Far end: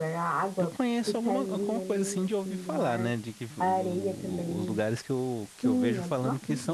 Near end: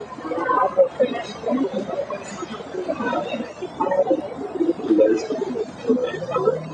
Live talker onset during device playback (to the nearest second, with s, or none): none